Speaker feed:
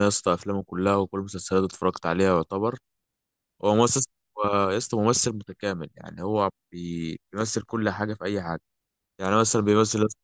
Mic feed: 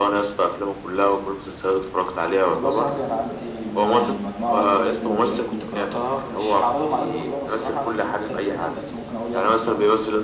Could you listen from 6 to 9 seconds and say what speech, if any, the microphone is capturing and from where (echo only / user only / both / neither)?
both